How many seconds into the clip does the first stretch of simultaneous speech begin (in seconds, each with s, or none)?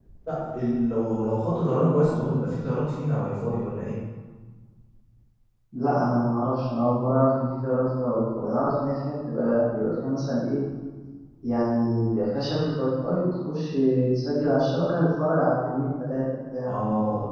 none